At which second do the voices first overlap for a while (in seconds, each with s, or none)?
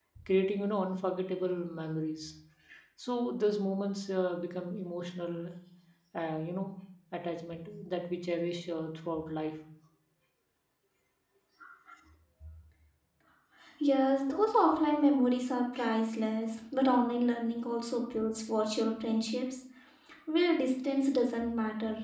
none